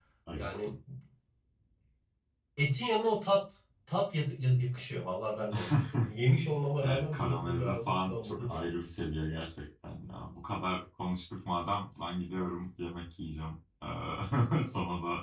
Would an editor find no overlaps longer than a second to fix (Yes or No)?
No